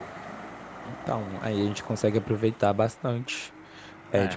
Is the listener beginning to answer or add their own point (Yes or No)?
Yes